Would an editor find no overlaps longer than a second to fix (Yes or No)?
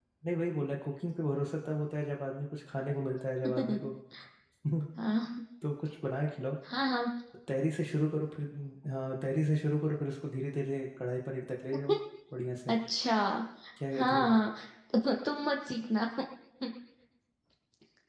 Yes